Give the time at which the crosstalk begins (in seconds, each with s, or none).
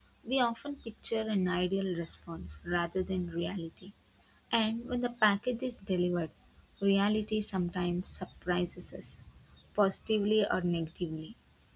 none